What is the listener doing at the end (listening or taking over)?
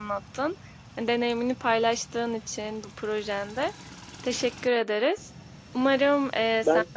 listening